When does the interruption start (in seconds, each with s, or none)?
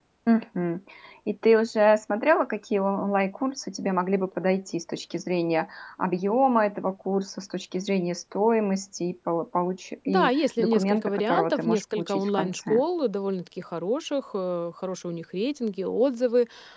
10.1 s